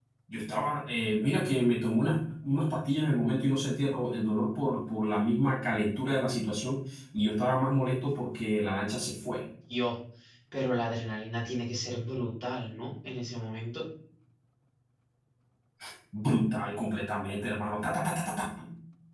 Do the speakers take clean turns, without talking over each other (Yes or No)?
Yes